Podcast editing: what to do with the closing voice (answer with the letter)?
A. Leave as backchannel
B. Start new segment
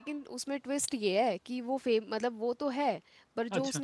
A